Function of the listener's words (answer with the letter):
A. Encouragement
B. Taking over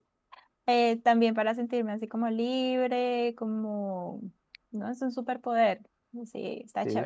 B